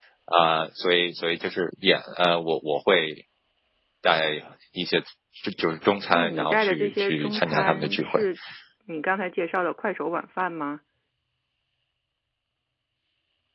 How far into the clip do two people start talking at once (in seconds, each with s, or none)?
6.1 s